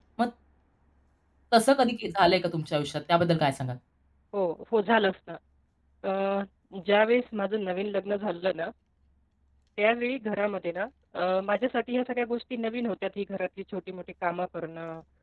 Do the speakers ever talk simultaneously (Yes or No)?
No